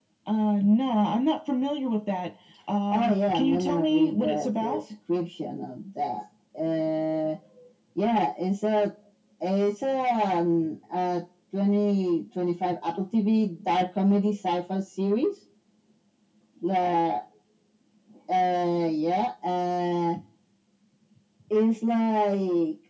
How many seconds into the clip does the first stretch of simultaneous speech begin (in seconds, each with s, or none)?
2.9 s